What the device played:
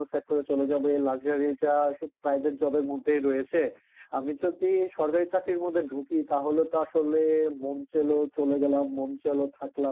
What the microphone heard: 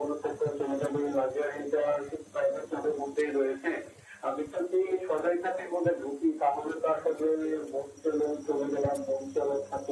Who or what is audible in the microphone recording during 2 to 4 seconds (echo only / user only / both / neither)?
echo only